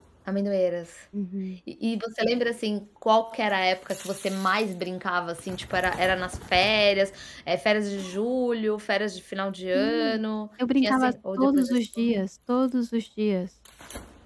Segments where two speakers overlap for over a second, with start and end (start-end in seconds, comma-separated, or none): 10.8-12.1